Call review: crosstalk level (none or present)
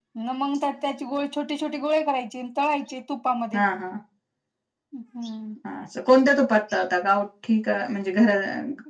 none